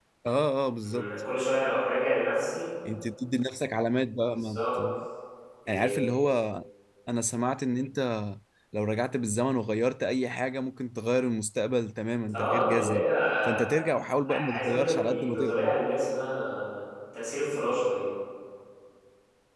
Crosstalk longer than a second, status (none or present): present